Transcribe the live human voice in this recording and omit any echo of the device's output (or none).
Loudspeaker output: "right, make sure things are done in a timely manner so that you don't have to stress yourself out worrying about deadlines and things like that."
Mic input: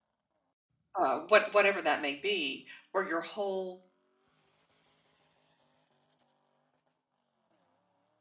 uh, what whatever that may be, where your whole